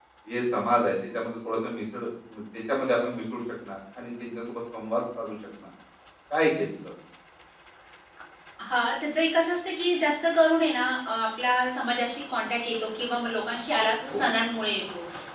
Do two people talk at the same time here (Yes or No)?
No